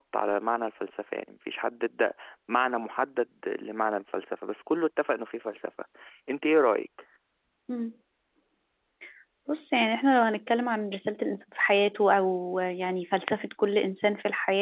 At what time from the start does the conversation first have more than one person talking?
none

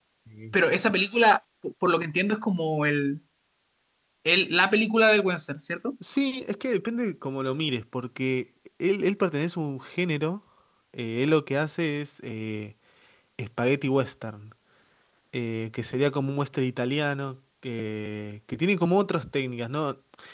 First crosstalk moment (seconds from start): none

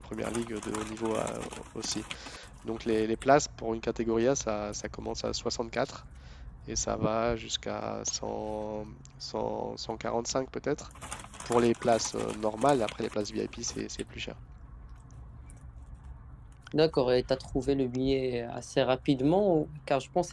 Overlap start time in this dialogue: none

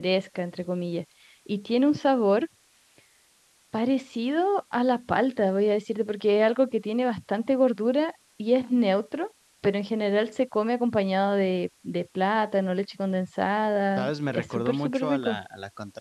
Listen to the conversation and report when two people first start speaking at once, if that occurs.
14.0 s

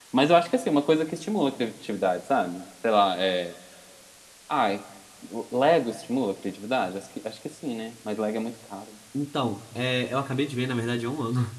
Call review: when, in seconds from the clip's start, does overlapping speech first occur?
none

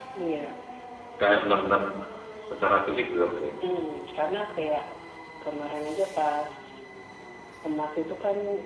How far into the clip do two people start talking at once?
none

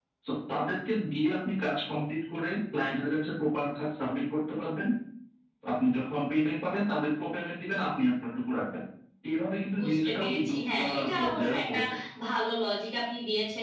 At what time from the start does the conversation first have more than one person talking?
9.8 s

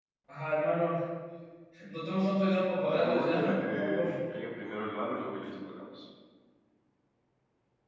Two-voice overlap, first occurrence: 2.9 s

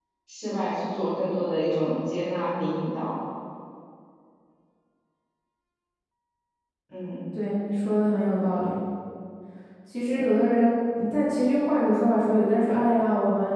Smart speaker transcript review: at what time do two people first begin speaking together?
none

